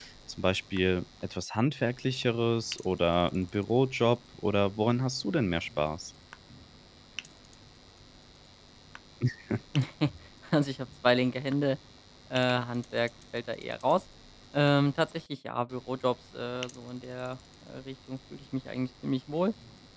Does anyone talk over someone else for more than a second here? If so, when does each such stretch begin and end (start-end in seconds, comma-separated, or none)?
none